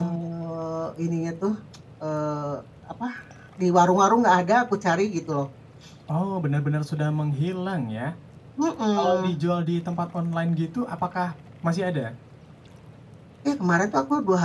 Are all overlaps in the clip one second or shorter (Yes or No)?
Yes